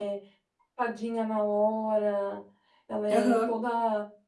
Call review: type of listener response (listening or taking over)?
listening